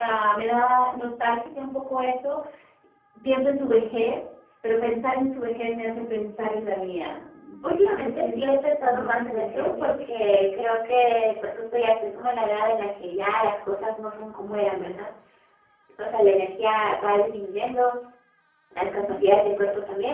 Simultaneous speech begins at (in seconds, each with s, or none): 8.0 s